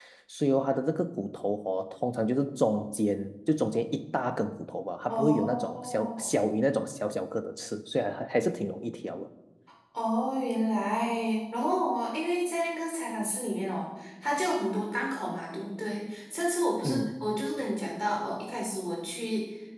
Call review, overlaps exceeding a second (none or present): present